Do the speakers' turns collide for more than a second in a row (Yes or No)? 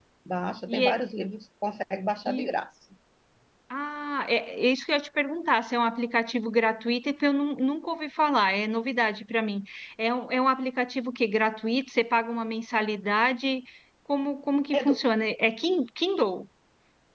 No